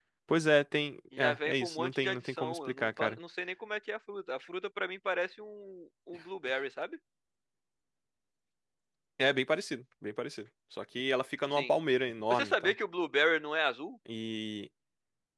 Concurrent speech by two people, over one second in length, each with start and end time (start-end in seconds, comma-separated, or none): 1.2-3.2